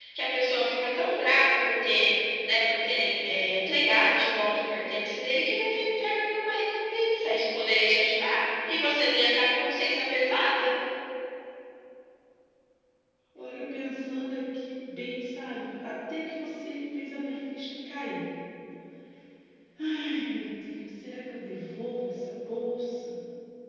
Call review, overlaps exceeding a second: none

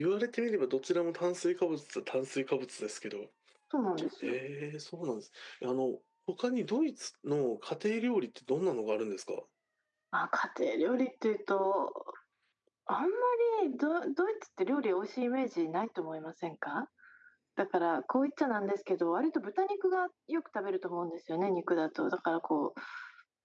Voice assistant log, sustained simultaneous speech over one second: none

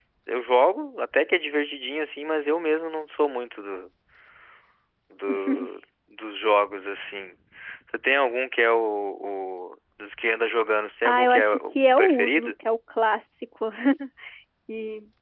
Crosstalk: present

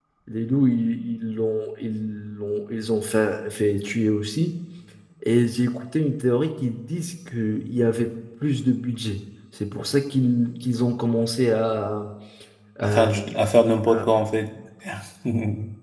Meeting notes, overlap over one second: none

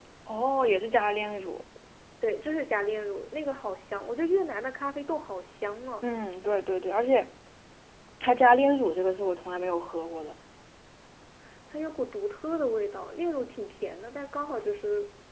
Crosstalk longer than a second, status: none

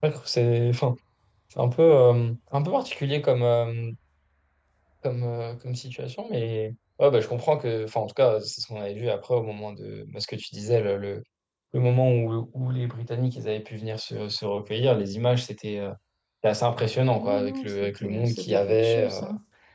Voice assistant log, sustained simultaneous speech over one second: present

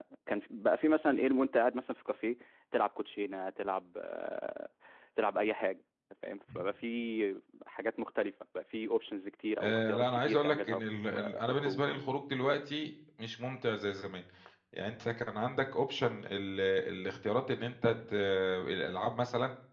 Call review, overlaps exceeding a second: present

